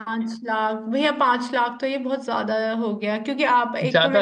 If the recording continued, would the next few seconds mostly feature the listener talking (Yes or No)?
No